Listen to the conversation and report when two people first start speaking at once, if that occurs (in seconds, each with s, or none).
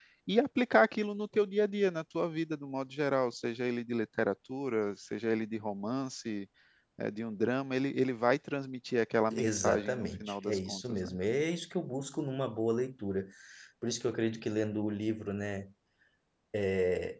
9.3 s